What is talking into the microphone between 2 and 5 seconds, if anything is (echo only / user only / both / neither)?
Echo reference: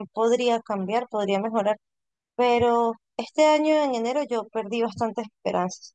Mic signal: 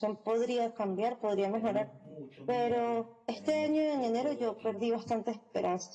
both